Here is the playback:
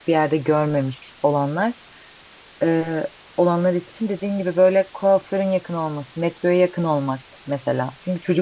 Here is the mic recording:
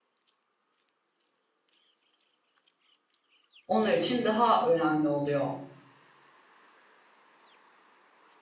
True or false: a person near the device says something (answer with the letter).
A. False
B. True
B